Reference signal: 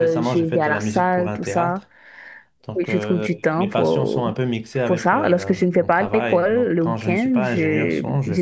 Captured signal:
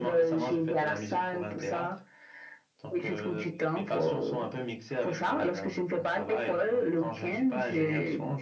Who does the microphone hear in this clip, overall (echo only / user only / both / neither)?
echo only